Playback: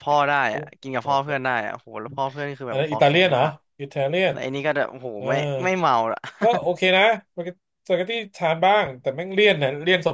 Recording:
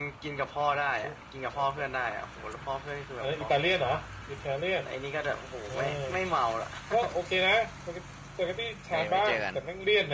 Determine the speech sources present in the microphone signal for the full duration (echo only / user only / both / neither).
both